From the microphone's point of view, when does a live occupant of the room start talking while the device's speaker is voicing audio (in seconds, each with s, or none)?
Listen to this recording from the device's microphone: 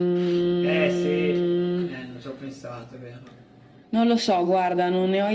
0.6 s